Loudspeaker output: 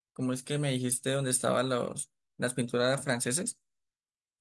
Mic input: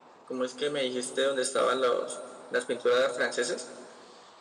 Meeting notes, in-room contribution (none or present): none